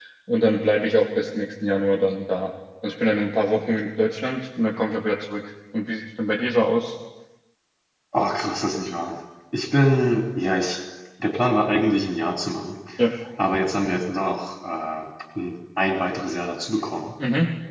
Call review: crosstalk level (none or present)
none